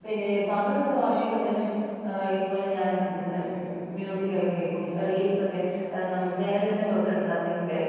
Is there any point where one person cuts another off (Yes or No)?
No